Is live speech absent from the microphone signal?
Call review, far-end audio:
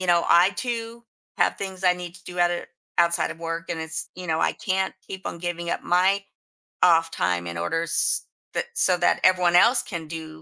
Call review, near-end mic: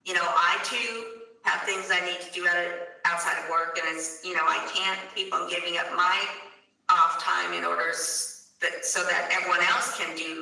Yes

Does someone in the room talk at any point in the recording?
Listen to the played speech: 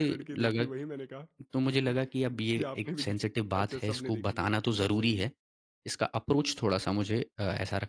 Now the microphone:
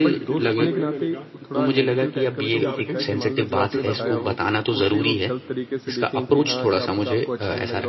Yes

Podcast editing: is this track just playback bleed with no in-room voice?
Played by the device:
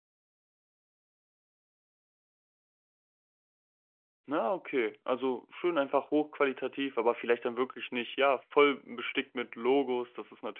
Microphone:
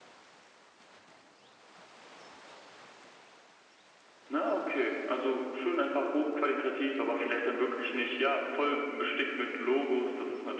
Yes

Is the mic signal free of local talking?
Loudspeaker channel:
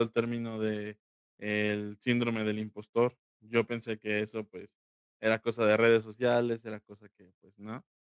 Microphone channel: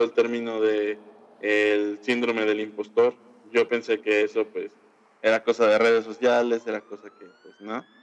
Yes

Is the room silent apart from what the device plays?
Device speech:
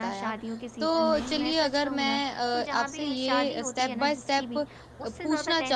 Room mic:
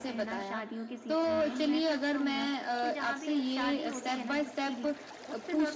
Yes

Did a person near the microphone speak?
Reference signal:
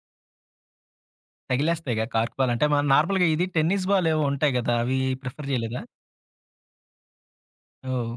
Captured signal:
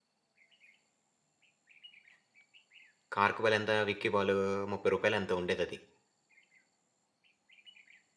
Yes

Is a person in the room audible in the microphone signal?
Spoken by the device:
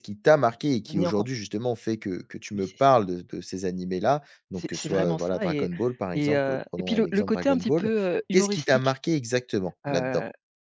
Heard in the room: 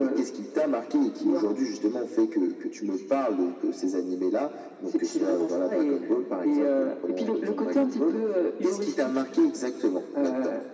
No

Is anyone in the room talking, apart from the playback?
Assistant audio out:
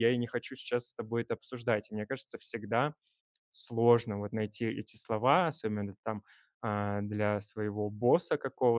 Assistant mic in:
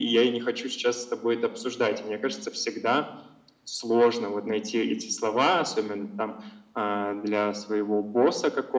No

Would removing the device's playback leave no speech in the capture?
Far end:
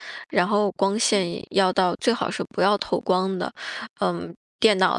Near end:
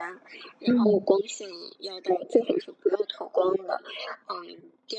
No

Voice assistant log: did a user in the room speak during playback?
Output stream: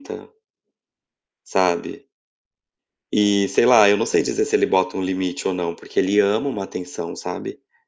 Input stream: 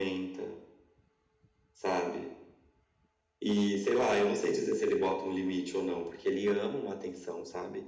No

